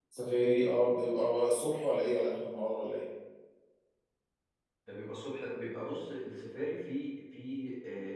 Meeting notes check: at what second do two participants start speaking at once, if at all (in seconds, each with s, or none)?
none